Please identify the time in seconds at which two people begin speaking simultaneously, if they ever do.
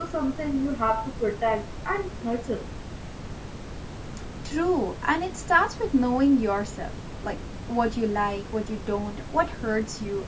none

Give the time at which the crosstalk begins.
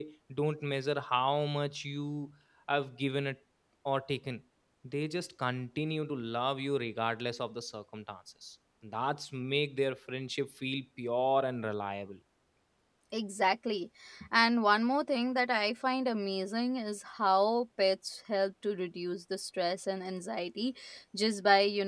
none

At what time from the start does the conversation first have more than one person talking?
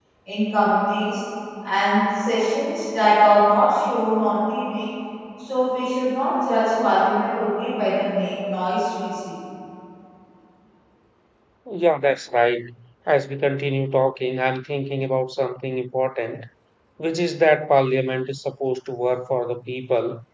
none

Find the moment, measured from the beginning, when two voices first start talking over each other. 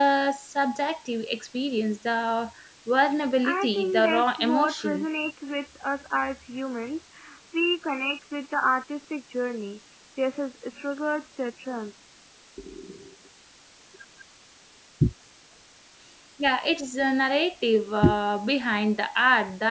3.4 s

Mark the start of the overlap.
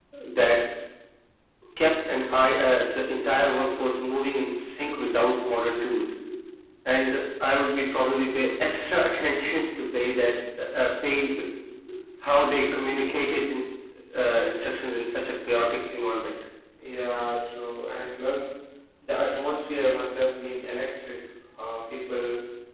none

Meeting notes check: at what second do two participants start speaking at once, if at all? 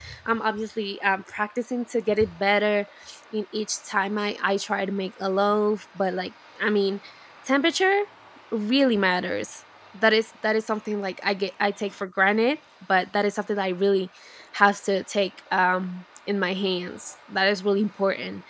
none

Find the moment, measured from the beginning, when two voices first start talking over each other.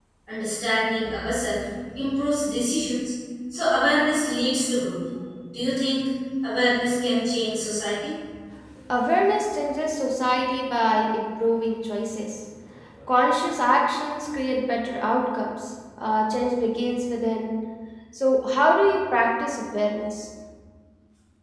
none

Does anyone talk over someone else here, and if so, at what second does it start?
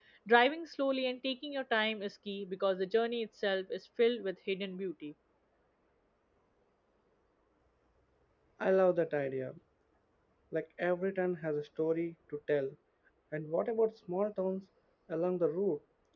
none

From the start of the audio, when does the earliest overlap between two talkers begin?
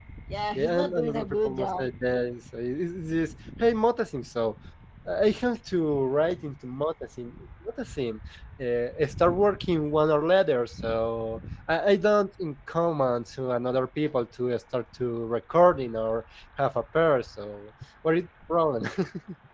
0.6 s

